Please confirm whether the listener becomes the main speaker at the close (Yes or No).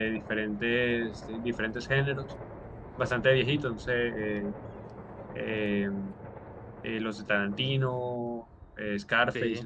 No